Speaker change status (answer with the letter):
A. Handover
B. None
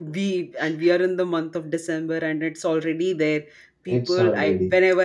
B